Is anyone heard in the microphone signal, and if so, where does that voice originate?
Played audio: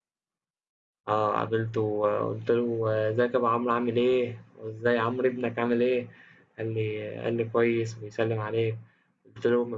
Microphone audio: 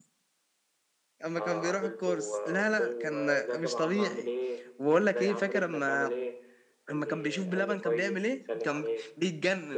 both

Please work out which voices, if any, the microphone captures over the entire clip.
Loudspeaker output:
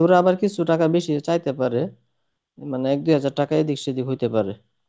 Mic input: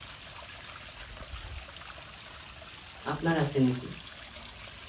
user only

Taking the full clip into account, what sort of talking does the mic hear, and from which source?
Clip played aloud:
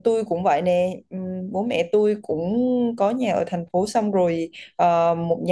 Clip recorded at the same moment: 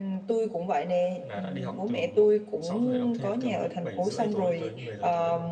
both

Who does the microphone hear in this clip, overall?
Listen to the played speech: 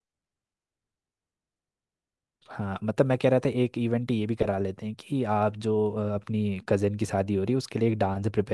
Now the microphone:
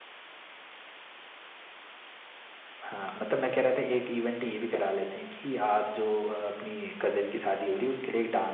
echo only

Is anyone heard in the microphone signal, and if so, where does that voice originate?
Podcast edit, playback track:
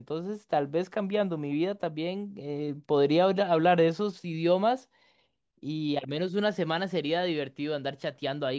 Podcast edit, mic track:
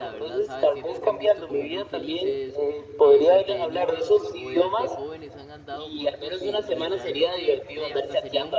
both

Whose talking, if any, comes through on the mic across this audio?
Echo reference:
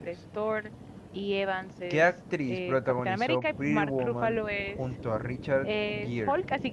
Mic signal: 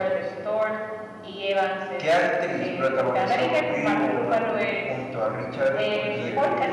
both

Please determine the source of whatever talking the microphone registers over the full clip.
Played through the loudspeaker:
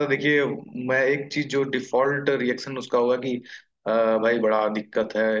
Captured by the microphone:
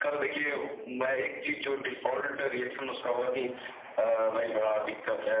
echo only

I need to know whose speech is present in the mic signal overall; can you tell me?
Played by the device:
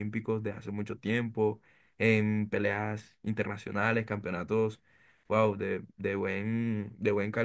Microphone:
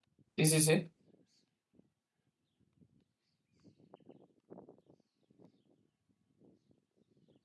user only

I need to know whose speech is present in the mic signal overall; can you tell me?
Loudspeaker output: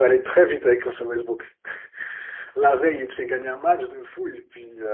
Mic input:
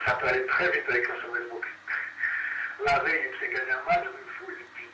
echo only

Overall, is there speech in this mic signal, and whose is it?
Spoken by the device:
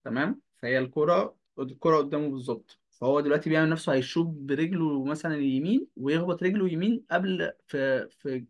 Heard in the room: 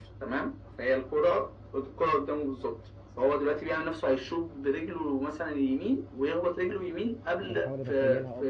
both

